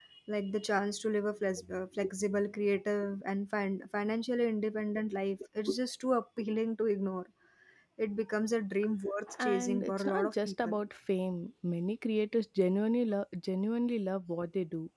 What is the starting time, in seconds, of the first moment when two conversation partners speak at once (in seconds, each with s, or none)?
9.3 s